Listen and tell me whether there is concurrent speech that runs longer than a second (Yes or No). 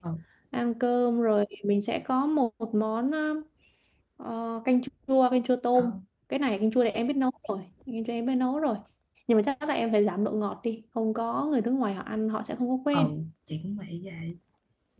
No